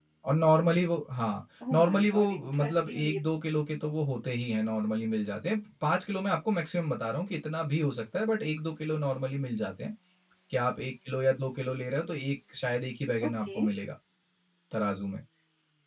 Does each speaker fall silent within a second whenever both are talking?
No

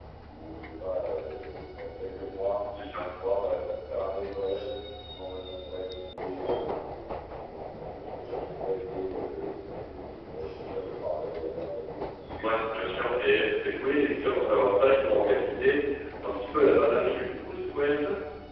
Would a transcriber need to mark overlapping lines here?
No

